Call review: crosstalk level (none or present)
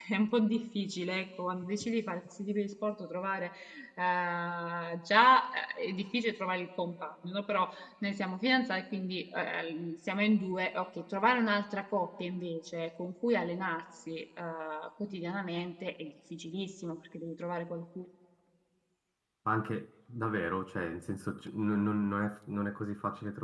none